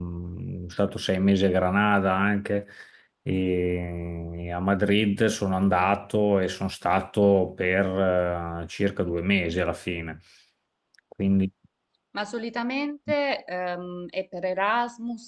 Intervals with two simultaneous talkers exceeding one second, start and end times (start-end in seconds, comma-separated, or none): none